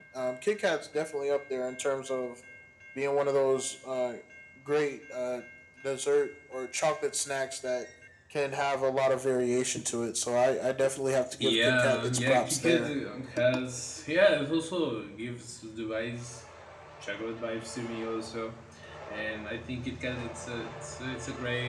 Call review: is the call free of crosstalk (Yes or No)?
No